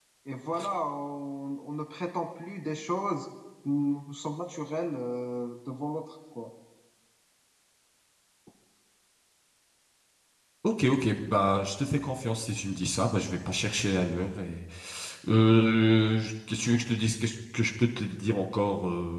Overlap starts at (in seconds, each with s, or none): none